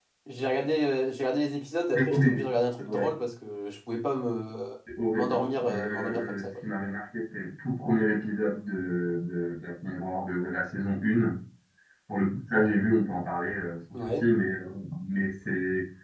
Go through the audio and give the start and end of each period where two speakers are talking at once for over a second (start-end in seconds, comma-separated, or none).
5.1-6.4